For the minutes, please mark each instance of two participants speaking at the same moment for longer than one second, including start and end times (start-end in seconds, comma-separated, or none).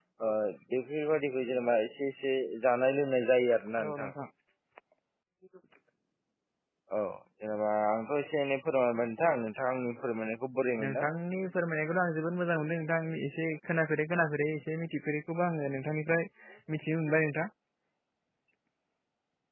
none